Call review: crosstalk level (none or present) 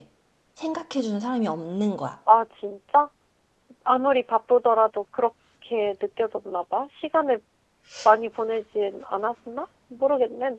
none